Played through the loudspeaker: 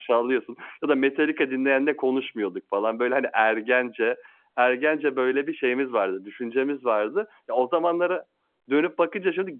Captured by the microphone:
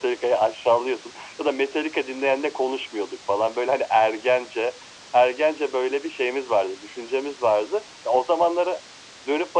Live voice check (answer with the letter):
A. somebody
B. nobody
B